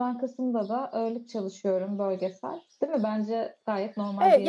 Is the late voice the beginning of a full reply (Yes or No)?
Yes